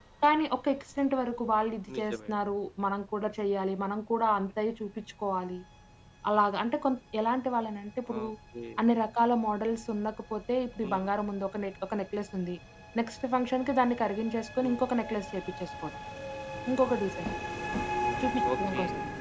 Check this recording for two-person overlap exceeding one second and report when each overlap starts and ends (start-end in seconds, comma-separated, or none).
none